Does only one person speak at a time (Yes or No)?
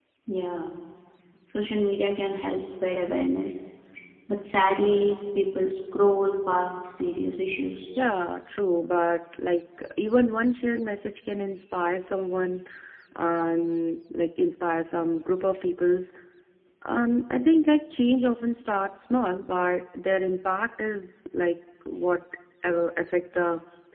Yes